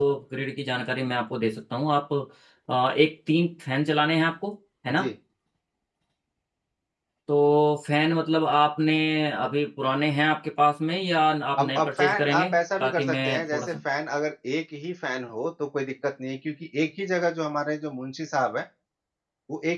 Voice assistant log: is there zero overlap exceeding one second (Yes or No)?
No